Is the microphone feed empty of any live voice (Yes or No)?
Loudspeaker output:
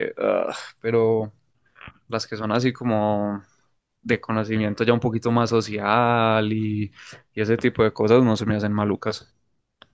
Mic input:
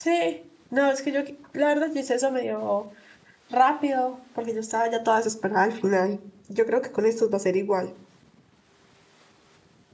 No